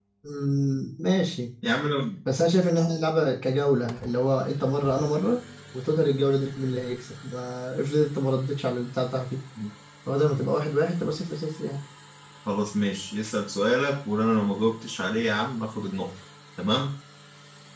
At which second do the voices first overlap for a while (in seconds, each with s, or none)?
none